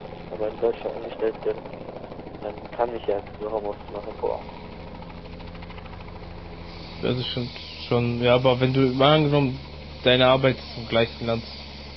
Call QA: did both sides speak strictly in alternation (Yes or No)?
Yes